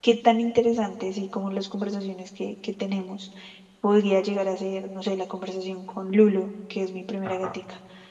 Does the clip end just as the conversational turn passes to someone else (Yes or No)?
No